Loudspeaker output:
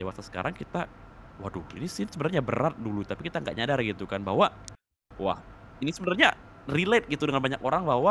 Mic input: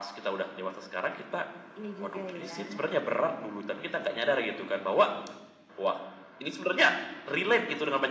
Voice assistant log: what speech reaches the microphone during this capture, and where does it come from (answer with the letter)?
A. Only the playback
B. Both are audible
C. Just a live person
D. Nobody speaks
B